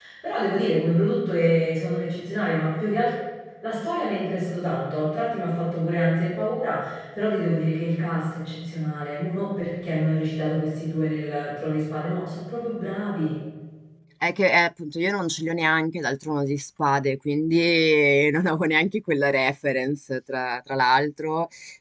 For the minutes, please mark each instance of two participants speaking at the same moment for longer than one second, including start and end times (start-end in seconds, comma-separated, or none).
none